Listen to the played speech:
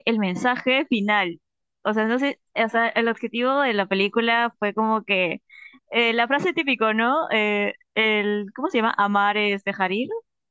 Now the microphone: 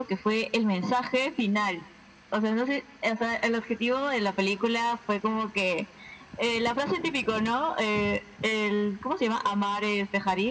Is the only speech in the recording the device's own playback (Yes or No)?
Yes